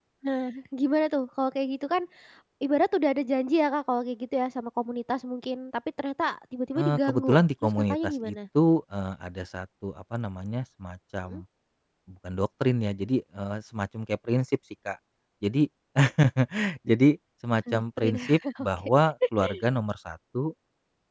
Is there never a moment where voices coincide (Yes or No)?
No